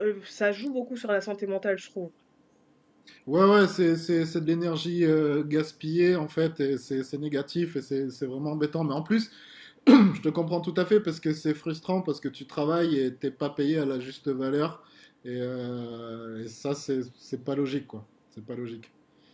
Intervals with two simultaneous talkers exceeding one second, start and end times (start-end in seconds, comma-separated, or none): none